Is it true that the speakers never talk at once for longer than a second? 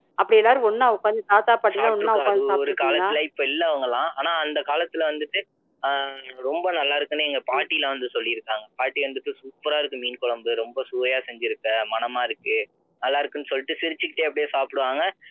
No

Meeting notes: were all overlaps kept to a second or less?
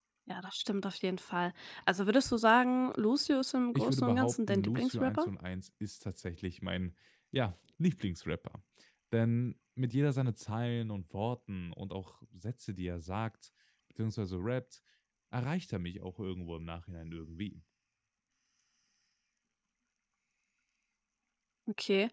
No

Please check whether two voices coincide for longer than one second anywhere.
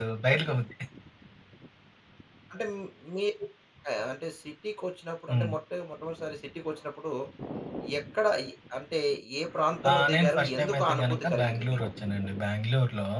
Yes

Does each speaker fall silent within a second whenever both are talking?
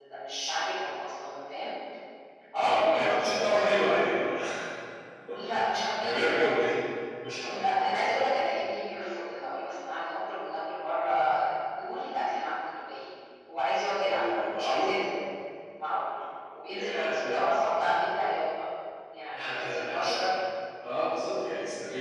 No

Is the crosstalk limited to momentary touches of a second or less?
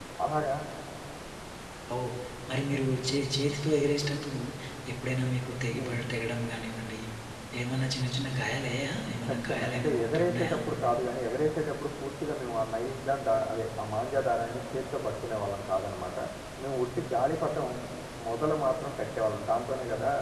No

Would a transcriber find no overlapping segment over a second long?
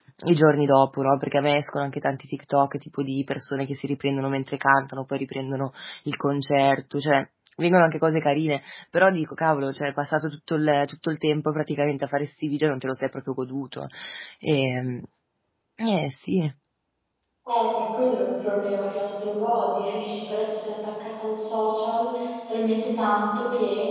Yes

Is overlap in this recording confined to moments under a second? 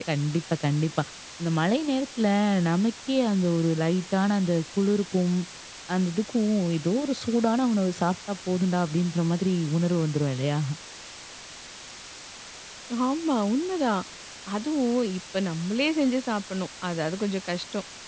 Yes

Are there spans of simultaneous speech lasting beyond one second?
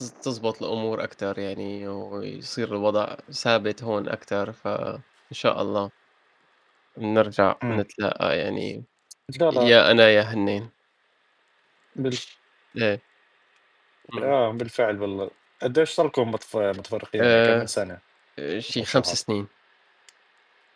No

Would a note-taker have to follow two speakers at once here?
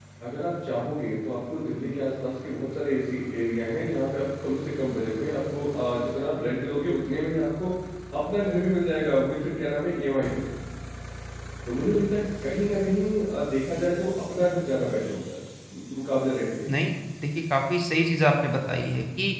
No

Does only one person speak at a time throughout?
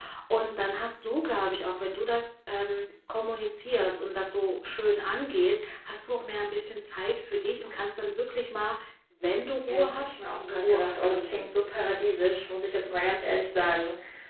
No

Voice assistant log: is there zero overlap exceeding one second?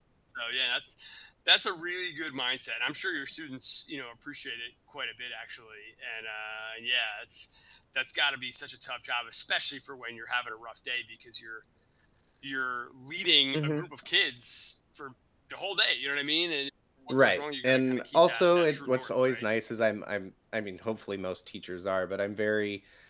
No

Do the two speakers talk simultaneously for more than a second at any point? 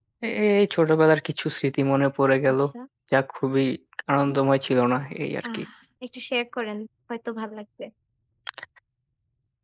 No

